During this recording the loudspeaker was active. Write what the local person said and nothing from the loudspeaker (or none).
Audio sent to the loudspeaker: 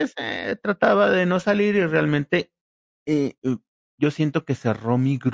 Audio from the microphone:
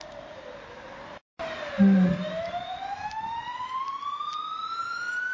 Mm,